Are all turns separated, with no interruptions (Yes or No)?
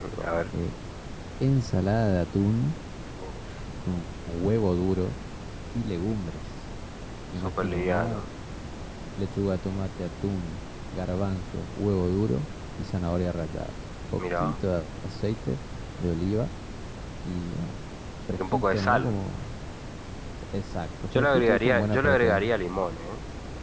No